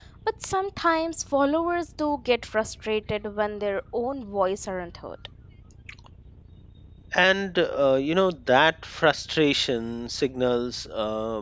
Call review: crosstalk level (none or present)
none